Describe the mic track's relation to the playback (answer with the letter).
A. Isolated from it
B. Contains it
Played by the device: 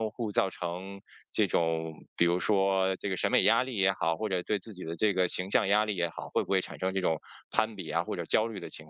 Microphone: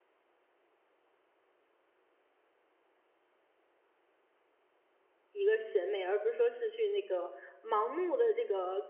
A